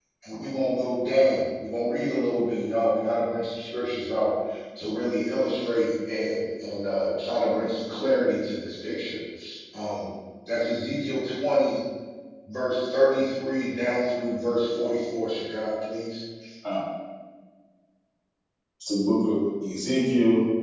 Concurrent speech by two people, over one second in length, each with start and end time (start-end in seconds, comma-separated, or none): none